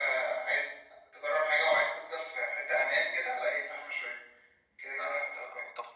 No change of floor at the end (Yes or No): No